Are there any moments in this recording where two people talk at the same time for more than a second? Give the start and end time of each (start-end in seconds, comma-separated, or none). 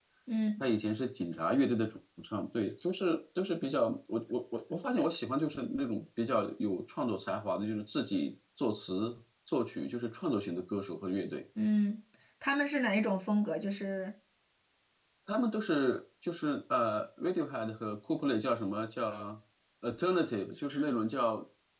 none